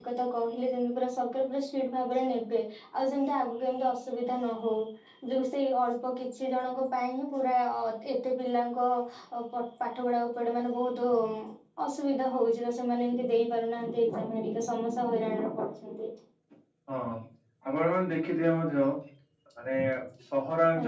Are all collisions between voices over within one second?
Yes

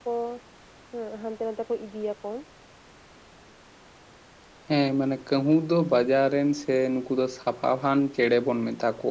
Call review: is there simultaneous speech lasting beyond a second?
No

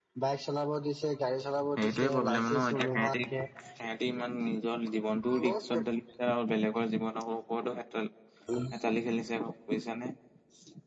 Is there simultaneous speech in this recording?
Yes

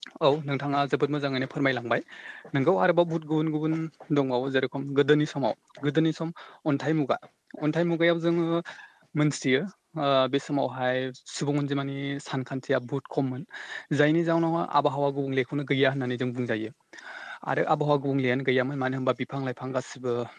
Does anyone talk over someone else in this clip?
No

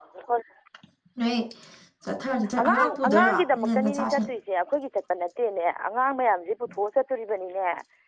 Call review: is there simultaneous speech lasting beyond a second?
Yes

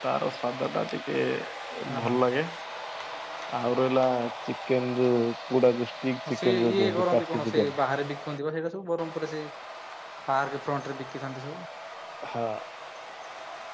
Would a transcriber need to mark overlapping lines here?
Yes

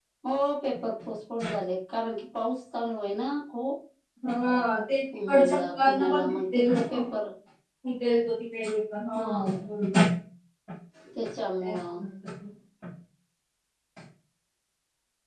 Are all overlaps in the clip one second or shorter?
No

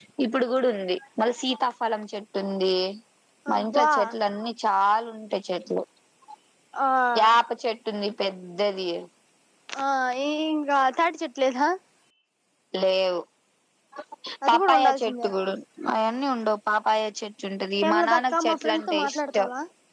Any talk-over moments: Yes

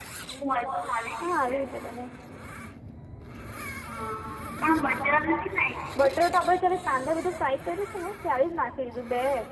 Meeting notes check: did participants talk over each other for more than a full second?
No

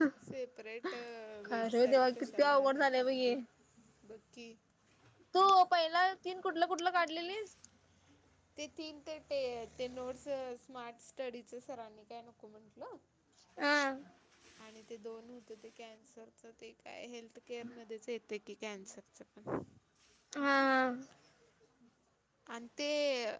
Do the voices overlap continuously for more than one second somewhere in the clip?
Yes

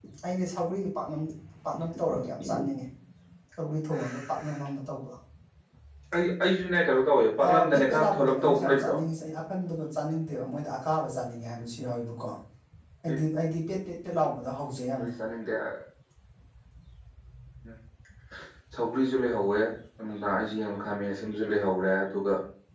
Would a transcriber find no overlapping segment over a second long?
No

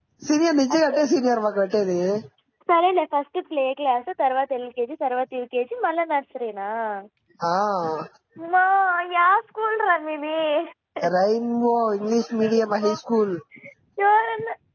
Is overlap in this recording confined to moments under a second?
Yes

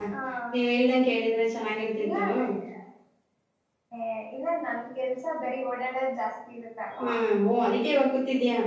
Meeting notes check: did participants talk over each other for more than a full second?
No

